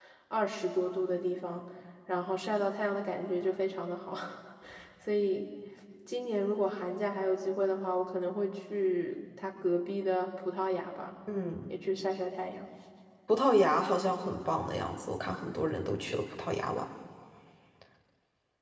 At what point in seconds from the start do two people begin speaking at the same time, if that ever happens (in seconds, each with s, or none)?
none